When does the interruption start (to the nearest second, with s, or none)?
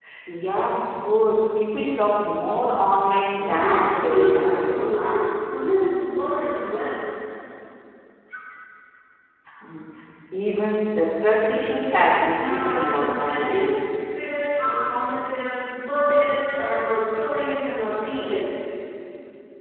3 s